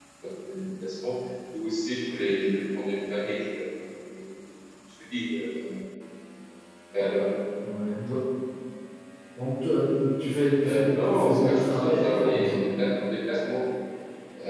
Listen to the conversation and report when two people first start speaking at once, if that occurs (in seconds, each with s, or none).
10.6 s